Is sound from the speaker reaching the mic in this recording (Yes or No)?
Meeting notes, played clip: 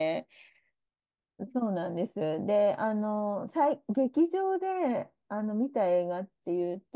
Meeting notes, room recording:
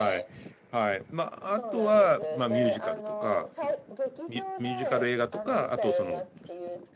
Yes